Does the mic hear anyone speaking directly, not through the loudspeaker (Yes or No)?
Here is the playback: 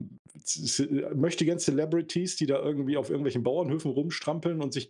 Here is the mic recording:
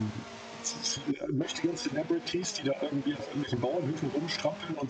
No